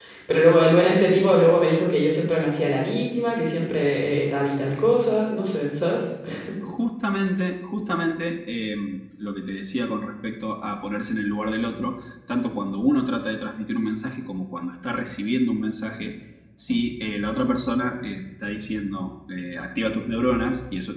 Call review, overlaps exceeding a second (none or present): none